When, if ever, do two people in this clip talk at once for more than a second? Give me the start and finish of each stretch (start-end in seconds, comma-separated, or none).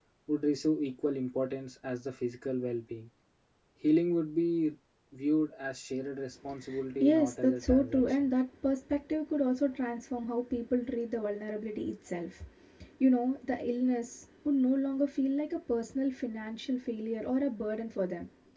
7.0-8.3